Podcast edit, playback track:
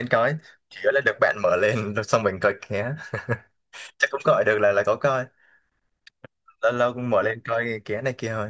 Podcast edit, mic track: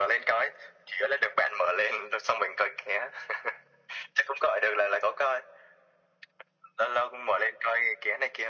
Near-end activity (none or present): none